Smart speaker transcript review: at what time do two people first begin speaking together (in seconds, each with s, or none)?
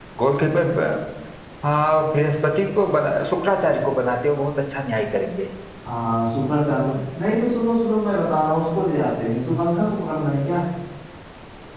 none